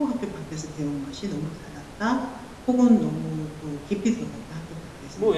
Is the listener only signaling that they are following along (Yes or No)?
No